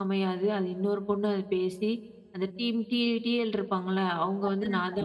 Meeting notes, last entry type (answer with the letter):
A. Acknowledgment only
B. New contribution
A